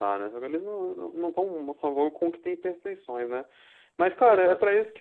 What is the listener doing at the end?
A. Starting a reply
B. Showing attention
B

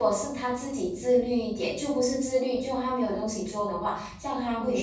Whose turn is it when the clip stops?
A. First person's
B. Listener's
B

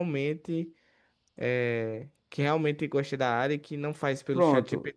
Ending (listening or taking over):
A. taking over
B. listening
A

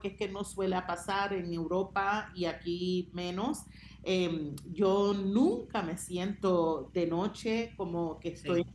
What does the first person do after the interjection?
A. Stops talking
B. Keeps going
B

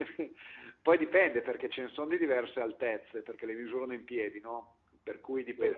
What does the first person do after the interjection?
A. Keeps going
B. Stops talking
A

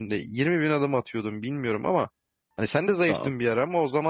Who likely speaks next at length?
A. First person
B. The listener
A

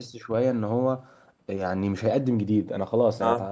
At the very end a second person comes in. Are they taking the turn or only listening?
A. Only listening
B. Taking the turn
A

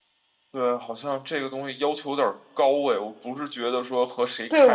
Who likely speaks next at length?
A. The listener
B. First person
A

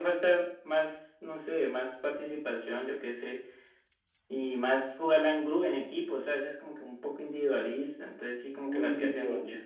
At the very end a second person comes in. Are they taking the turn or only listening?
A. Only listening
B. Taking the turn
B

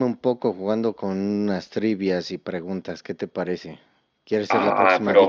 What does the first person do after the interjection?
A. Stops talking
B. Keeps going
A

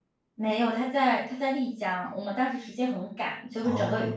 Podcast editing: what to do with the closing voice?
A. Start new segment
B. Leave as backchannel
B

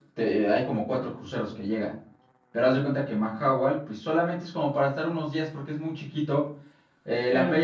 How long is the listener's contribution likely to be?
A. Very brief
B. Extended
A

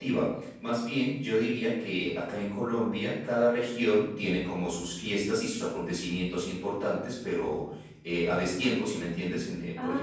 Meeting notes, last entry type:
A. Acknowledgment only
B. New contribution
B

